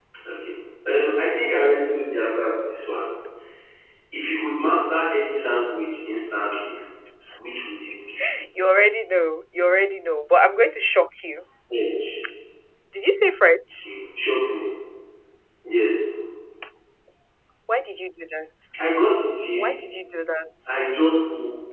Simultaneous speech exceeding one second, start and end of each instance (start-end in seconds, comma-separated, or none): none